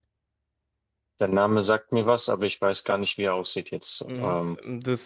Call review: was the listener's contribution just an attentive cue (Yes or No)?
No